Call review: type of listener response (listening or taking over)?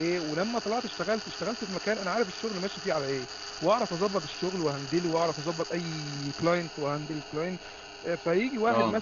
listening